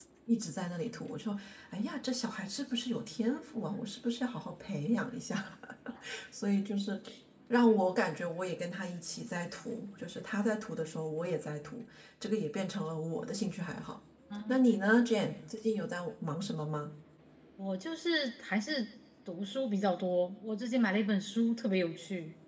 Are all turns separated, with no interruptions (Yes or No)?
Yes